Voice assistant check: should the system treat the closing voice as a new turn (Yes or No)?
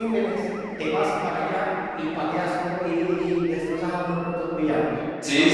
Yes